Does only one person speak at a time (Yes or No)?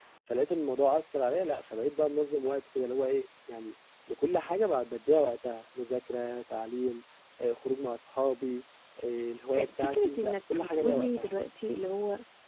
No